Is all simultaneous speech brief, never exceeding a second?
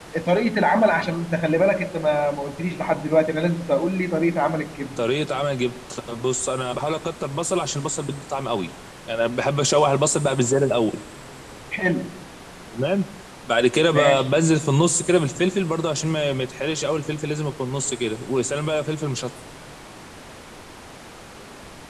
Yes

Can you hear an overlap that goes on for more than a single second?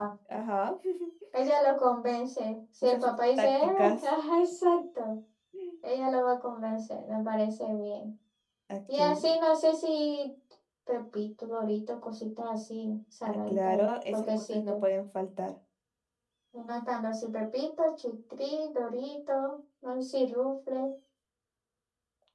Yes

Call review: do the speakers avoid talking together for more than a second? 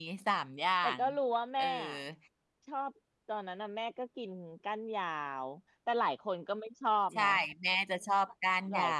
Yes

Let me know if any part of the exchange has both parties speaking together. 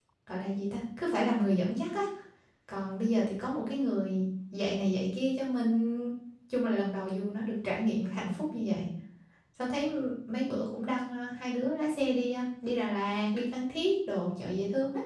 No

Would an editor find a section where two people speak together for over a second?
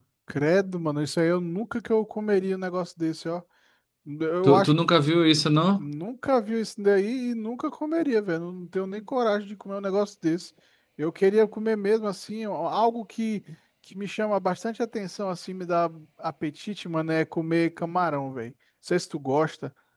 No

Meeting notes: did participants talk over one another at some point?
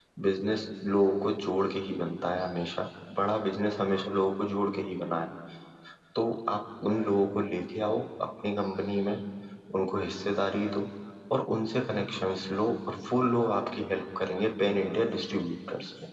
No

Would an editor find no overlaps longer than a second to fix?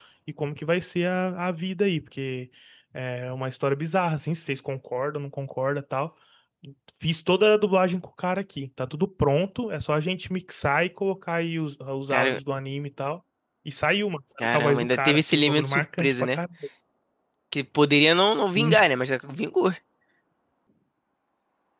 No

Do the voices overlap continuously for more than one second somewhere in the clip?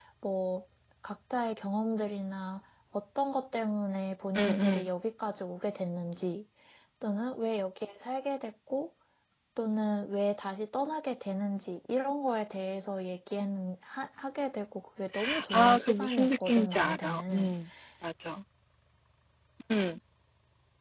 Yes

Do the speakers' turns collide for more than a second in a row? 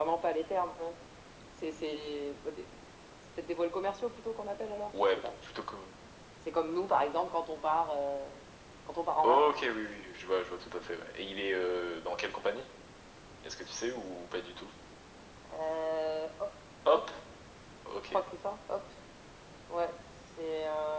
No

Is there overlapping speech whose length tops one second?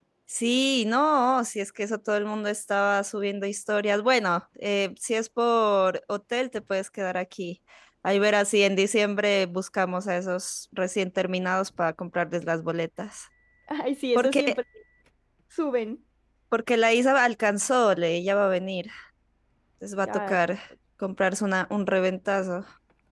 No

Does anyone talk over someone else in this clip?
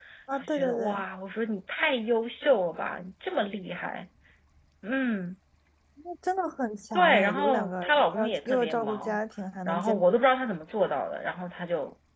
Yes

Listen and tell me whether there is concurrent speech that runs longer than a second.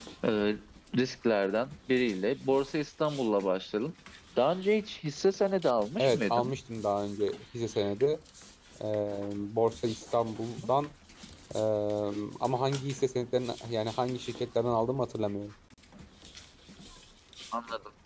No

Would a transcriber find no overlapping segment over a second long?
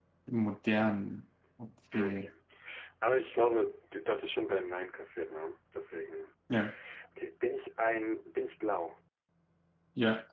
Yes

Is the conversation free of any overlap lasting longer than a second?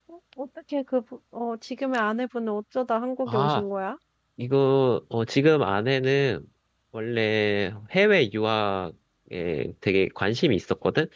Yes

